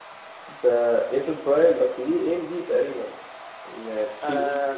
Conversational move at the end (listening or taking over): taking over